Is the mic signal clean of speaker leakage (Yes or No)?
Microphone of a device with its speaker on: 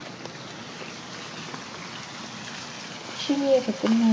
Yes